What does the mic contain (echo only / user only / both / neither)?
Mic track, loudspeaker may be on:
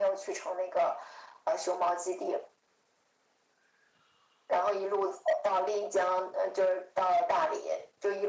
echo only